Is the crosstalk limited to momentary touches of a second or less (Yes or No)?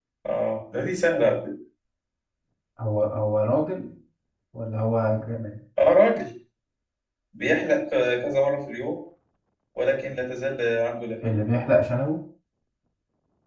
Yes